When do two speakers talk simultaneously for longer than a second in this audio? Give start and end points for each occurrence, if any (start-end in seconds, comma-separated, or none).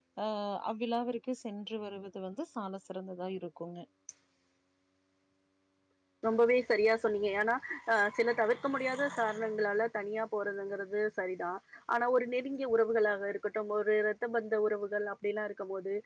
none